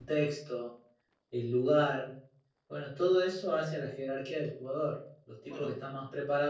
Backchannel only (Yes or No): Yes